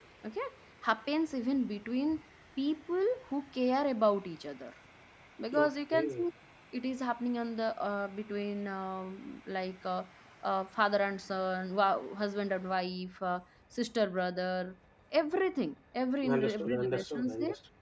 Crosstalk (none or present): present